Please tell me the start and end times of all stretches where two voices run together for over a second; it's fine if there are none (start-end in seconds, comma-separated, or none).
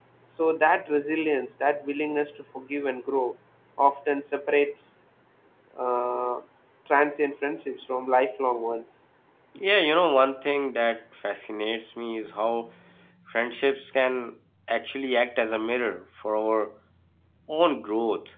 none